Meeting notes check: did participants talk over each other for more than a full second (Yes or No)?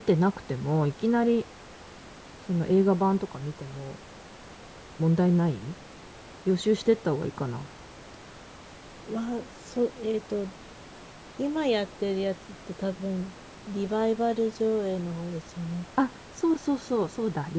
No